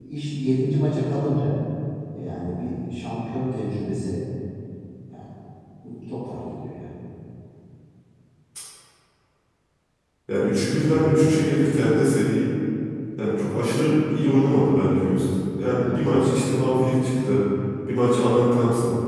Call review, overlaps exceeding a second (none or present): none